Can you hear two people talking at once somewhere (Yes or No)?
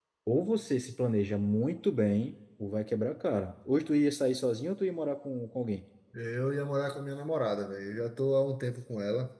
No